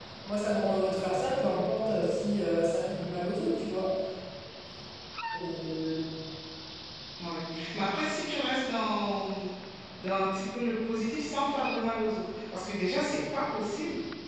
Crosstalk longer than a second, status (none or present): none